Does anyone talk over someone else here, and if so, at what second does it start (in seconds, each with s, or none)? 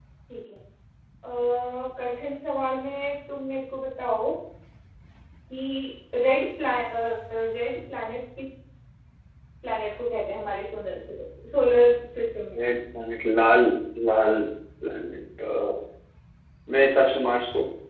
none